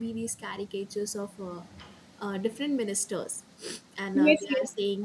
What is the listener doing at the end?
listening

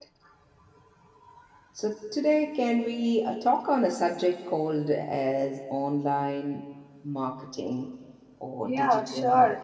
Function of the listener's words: listening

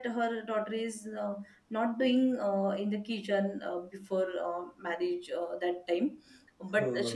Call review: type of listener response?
listening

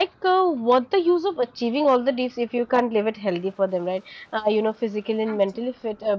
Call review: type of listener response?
listening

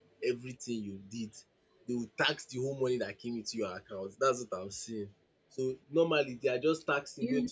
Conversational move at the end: listening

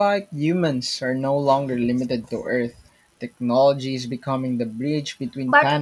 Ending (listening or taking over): taking over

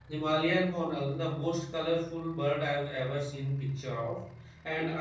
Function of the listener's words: listening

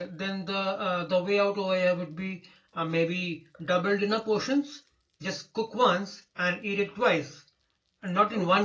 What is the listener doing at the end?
listening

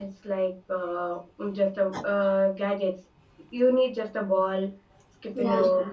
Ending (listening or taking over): listening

